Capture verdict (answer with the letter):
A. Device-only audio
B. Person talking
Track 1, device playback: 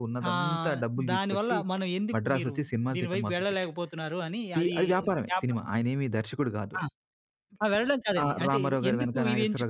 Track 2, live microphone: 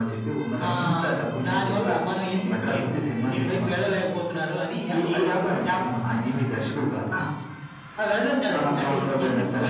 A